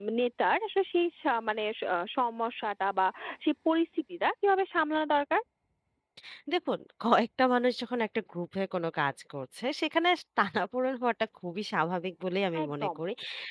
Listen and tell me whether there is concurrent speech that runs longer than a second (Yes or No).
No